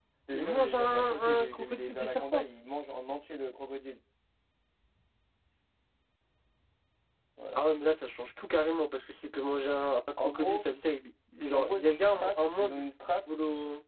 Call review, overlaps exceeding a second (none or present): present